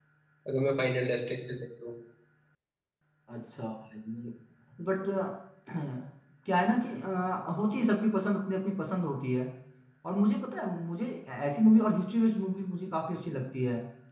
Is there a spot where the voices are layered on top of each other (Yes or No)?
No